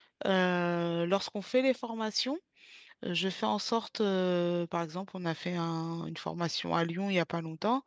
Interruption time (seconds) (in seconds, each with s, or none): none